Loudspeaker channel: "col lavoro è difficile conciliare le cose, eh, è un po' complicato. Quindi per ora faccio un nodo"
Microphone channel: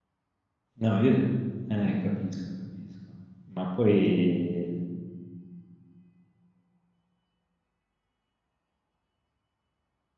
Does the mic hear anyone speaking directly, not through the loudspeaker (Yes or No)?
Yes